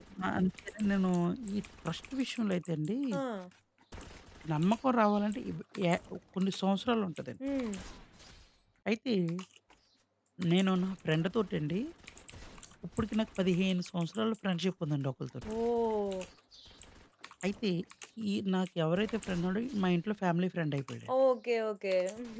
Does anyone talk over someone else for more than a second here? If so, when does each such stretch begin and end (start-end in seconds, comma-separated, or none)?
none